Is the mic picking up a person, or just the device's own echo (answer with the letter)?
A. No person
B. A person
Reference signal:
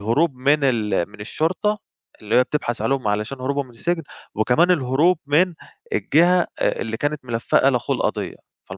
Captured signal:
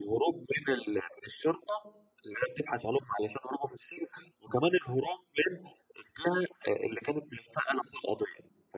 A